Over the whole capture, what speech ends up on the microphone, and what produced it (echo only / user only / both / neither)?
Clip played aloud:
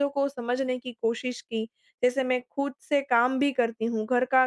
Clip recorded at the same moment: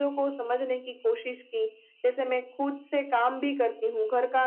echo only